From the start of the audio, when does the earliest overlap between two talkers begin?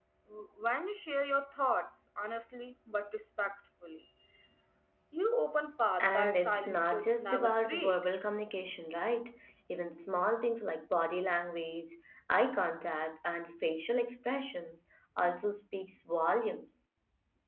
6.0 s

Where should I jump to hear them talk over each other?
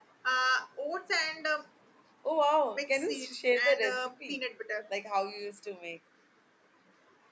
2.7 s

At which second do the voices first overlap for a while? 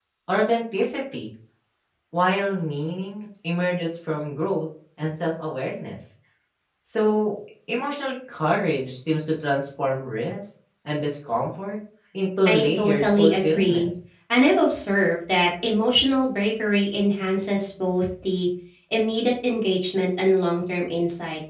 12.5 s

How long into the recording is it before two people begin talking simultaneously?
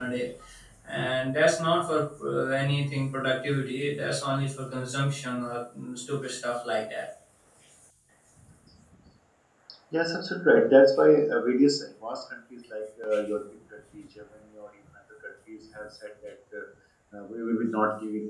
none

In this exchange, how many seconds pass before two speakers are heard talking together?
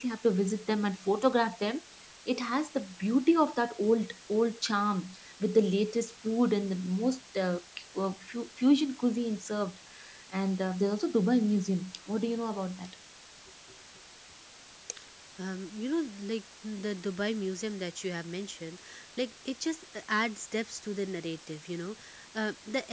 none

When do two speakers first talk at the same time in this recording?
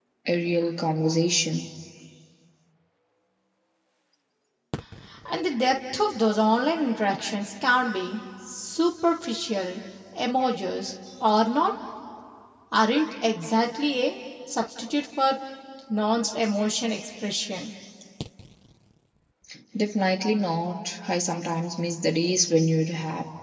none

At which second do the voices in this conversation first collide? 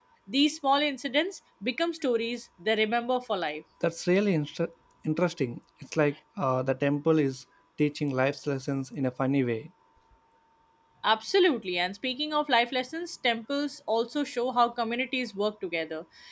none

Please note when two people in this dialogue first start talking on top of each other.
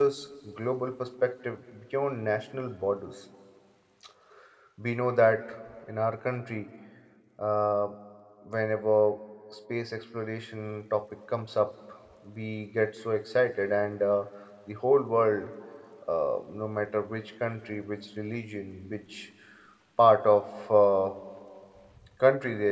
none

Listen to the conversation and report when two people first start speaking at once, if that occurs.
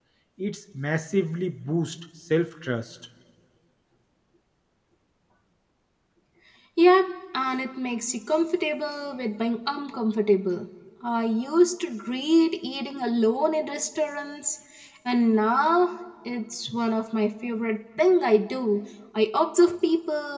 none

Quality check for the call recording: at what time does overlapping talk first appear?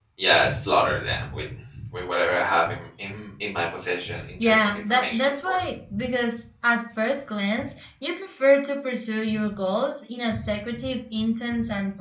4.4 s

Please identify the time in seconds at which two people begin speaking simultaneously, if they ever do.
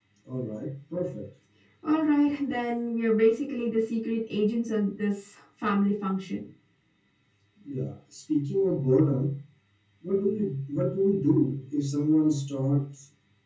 none

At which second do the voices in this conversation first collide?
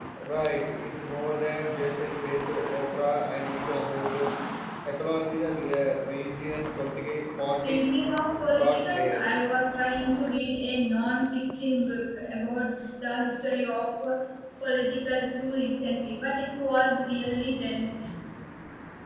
7.6 s

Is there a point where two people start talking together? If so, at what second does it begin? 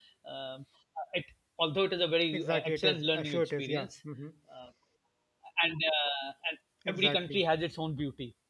2.3 s

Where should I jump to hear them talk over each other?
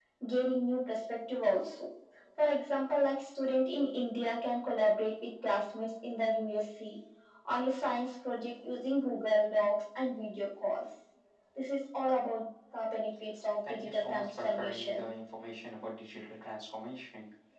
13.7 s

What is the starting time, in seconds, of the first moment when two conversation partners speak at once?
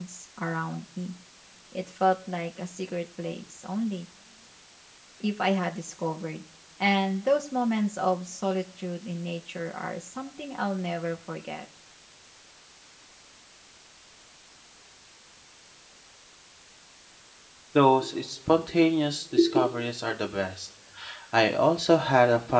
none

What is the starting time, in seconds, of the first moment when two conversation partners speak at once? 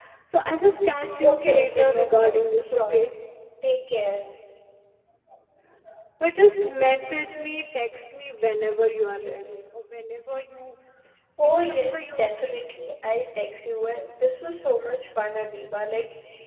1.2 s

